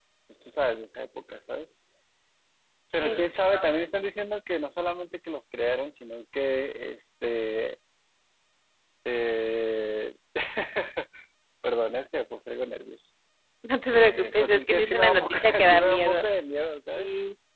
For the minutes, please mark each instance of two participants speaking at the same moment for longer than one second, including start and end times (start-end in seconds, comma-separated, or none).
13.9-16.2